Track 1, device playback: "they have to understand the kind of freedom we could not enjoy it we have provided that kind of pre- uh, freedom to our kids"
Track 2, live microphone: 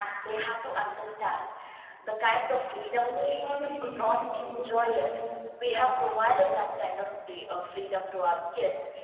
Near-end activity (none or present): present